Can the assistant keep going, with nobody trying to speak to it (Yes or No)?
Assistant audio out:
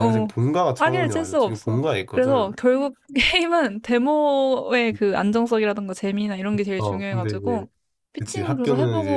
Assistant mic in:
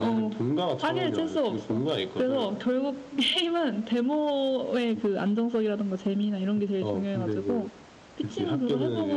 Yes